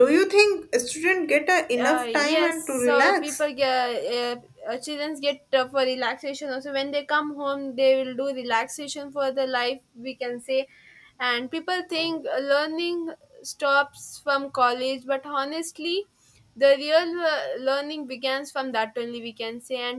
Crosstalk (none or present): present